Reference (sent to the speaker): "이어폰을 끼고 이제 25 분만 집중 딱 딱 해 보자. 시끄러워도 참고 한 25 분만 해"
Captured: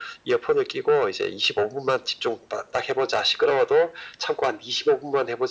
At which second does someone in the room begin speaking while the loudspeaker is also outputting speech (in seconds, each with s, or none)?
none